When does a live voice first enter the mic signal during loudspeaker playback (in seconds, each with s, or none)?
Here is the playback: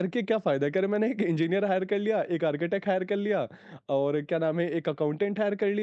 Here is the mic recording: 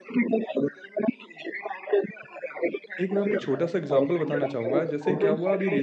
3.0 s